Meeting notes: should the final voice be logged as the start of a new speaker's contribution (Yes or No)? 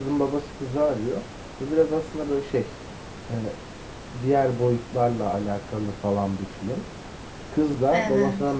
No